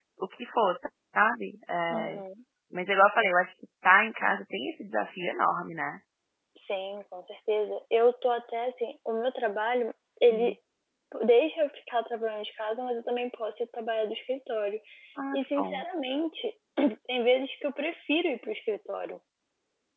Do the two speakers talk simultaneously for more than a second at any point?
No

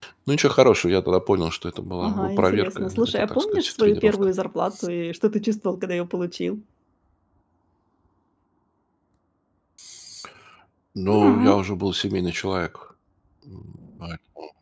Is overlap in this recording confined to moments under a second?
No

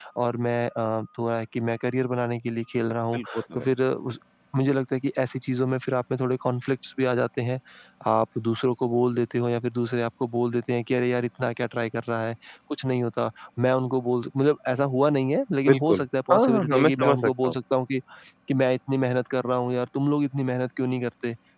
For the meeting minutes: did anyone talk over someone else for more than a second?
Yes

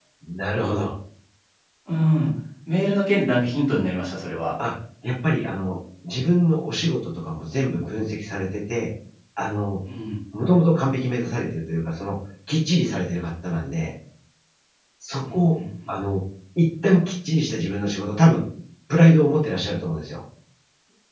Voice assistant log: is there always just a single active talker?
Yes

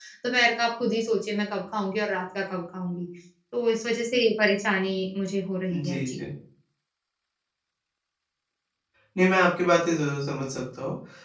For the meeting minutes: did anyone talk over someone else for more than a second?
No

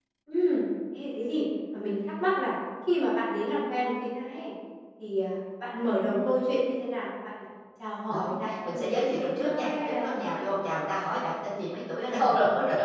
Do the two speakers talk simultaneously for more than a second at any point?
Yes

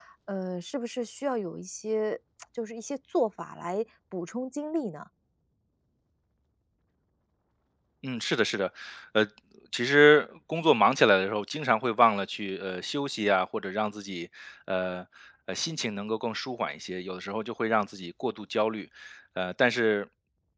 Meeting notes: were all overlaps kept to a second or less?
Yes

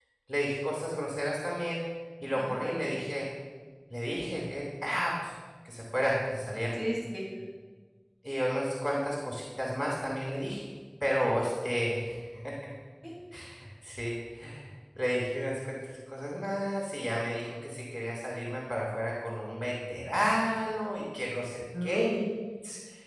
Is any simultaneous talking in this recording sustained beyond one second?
No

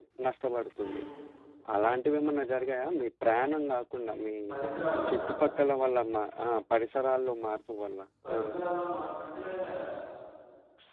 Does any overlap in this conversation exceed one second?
No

